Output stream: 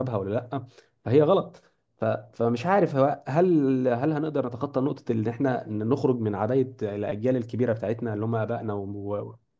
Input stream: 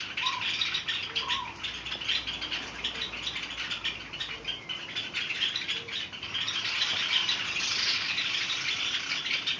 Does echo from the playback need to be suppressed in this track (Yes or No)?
No